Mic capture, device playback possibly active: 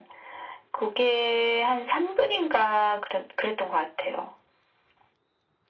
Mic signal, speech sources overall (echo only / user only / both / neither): echo only